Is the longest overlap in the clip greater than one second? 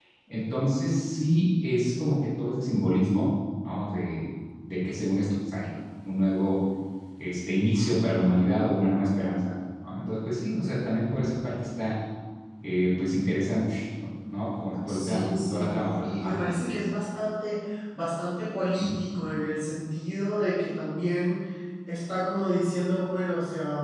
Yes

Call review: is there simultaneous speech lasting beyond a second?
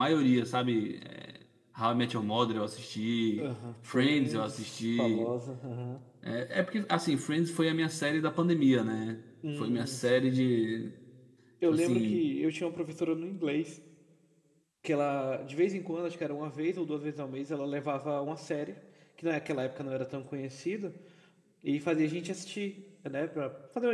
Yes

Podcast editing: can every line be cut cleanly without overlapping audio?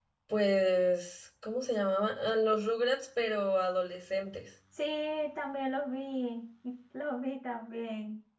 Yes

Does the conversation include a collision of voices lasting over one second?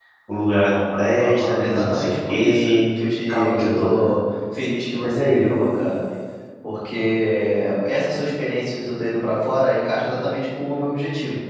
Yes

